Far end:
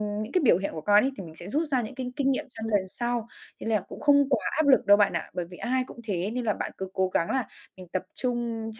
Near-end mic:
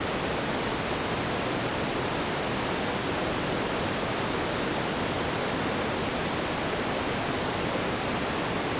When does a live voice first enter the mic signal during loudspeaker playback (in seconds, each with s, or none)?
none